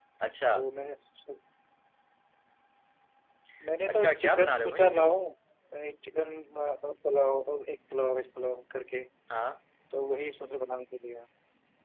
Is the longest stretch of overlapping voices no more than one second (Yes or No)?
No